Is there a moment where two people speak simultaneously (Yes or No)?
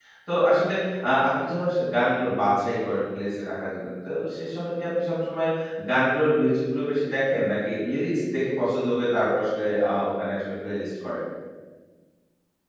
No